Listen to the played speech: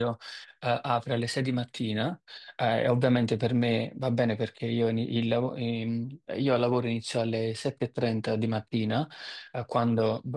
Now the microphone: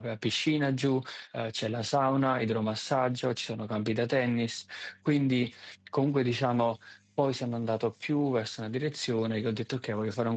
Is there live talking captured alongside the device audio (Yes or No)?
Yes